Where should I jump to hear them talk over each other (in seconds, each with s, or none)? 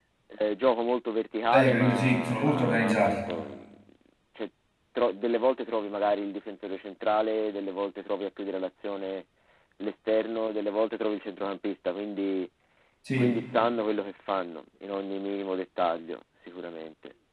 1.5 s